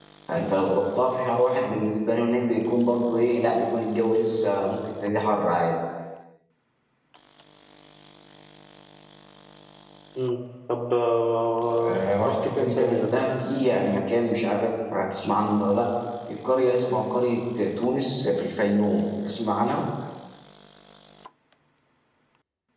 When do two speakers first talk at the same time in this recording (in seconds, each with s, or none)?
11.8 s